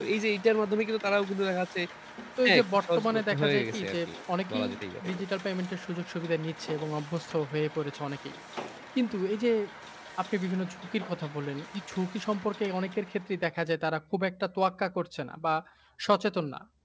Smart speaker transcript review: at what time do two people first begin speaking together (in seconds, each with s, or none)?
2.4 s